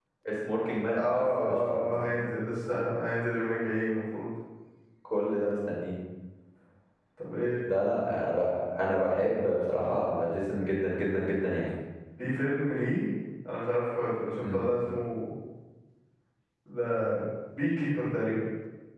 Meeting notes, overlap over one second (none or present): present